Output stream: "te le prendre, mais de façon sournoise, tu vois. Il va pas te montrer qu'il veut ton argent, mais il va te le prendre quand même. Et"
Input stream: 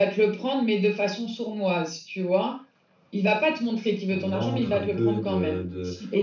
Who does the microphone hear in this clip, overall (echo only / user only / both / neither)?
both